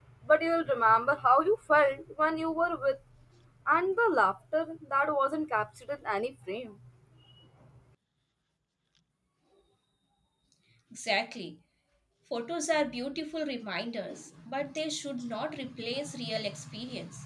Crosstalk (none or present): none